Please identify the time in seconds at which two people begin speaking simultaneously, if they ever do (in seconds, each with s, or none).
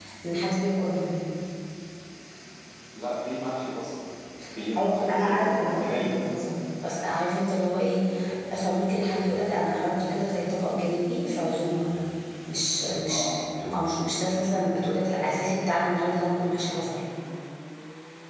4.8 s